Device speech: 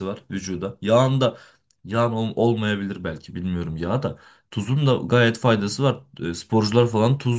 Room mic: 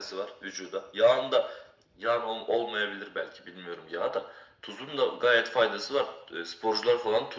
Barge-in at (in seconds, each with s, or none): none